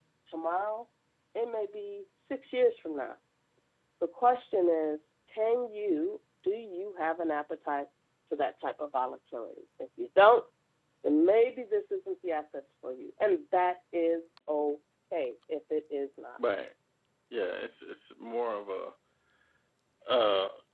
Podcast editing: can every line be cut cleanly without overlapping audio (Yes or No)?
Yes